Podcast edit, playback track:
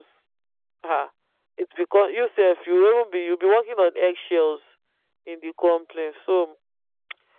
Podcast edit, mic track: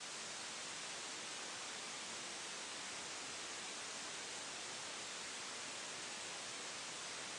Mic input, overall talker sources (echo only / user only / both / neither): neither